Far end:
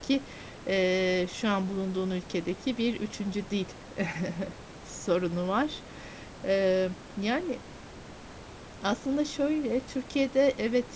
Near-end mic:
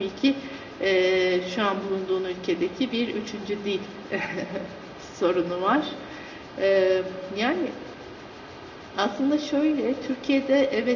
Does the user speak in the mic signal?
No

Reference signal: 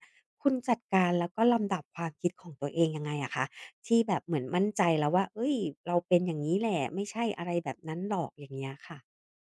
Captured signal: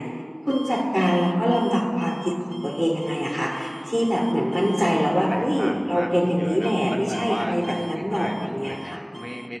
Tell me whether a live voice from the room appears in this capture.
Yes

